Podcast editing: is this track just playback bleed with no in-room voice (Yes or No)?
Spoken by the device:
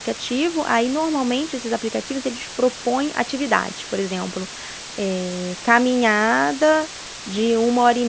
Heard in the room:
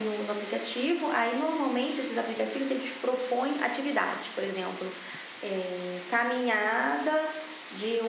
Yes